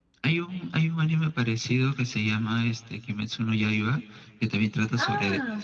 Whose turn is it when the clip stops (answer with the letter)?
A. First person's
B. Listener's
A